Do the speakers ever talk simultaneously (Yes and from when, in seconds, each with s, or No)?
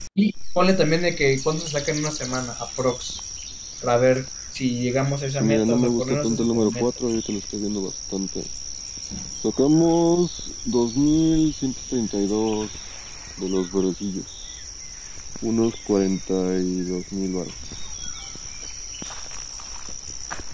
Yes, from 5.3 s